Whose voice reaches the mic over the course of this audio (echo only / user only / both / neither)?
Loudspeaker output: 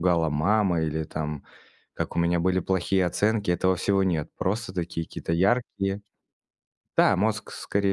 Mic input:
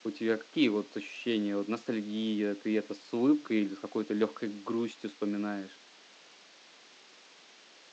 user only